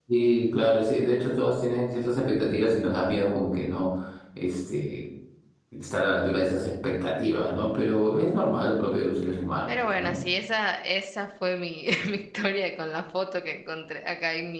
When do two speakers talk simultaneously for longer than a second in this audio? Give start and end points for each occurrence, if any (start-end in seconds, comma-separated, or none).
none